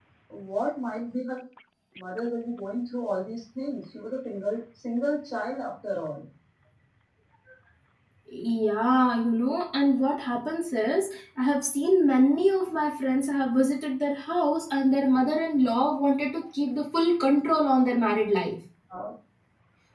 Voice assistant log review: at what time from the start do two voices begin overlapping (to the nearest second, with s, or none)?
none